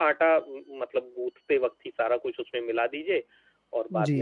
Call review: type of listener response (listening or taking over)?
taking over